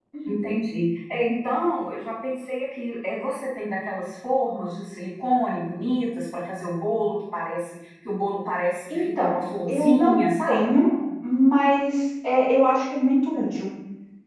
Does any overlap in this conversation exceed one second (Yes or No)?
Yes